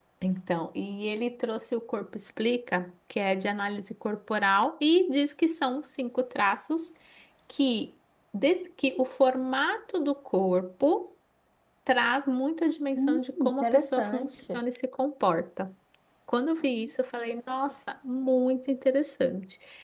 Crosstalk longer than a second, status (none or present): present